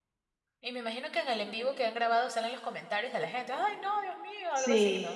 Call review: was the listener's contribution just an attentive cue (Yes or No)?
No